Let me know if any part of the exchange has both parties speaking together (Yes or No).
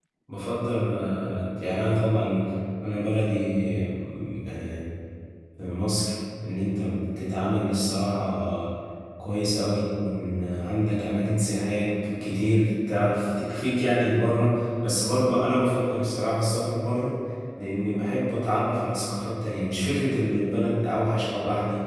No